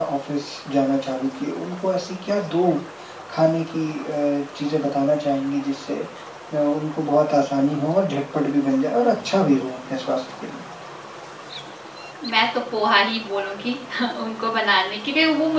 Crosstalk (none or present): none